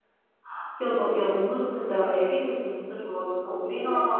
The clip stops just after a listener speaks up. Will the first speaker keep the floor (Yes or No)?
Yes